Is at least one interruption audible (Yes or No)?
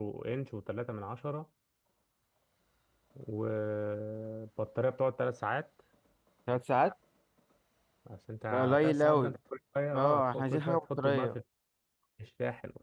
Yes